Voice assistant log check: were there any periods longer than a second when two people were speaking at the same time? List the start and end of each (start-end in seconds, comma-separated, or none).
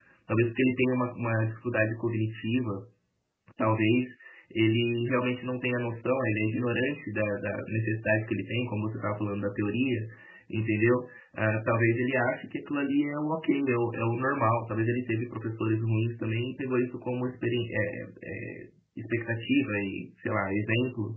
none